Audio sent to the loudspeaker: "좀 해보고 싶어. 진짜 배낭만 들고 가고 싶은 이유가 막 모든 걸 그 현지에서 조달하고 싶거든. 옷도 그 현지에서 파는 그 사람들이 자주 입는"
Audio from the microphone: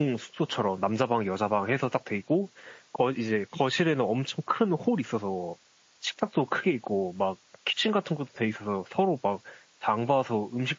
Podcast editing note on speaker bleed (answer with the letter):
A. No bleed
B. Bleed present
A